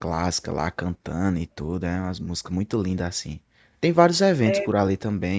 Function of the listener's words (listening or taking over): listening